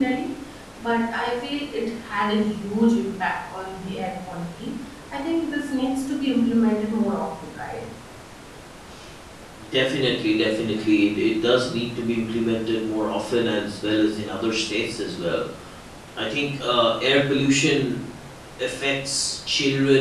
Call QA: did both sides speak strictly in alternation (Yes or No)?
Yes